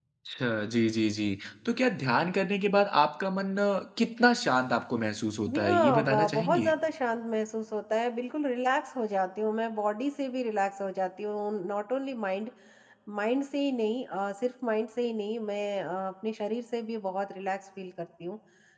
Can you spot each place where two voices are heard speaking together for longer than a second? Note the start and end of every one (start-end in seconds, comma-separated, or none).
5.5-6.7